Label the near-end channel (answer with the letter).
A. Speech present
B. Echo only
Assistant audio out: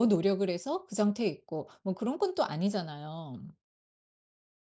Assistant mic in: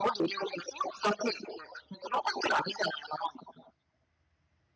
B